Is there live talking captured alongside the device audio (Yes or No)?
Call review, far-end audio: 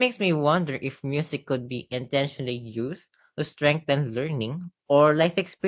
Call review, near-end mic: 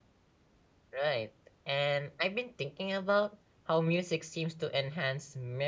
Yes